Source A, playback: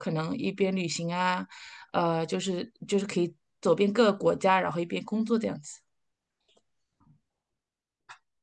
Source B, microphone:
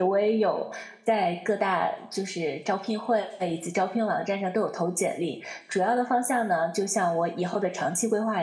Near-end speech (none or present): present